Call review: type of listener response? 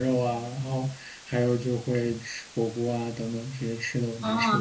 taking over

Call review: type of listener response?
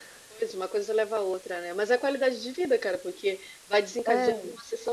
listening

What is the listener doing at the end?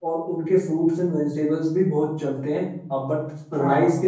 listening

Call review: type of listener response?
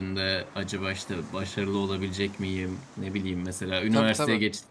listening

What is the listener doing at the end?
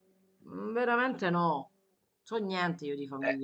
taking over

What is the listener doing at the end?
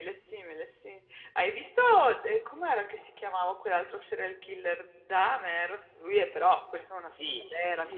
taking over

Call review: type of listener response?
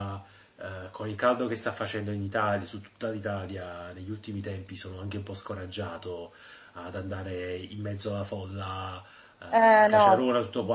listening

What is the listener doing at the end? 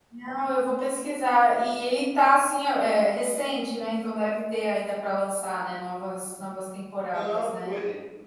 taking over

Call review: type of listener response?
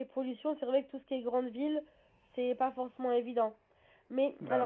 listening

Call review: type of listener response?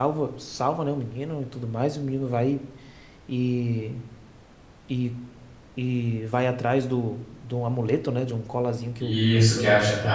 taking over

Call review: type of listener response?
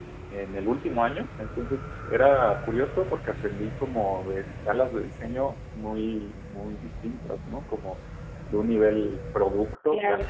listening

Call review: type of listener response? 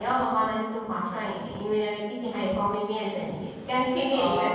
taking over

